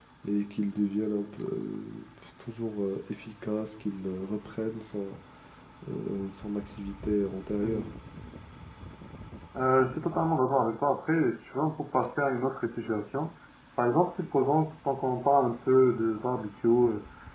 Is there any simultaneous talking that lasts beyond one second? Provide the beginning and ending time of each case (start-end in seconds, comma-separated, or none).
none